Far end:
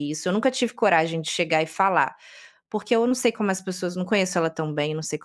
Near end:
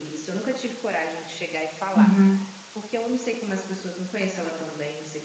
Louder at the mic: user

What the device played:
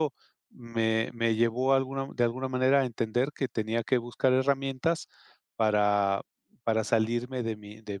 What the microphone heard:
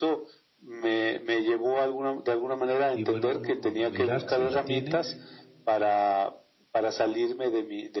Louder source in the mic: echo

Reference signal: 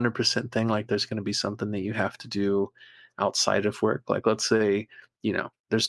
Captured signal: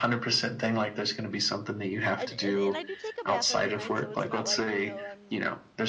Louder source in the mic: echo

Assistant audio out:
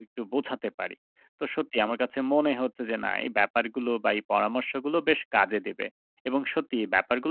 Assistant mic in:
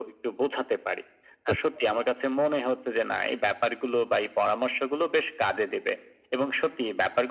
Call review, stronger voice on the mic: echo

